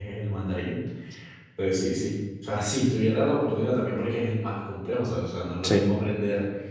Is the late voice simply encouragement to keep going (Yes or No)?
Yes